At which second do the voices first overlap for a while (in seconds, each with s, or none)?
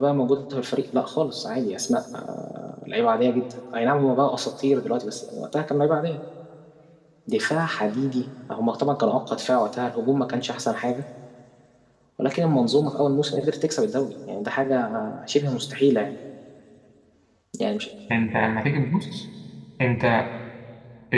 none